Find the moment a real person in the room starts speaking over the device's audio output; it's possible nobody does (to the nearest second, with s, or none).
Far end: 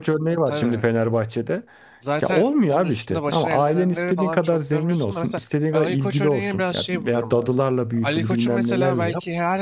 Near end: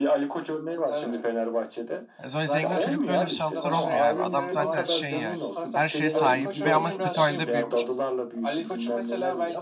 2 s